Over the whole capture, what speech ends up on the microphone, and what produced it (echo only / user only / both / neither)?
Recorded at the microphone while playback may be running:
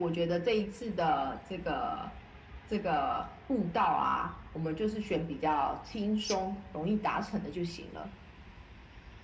echo only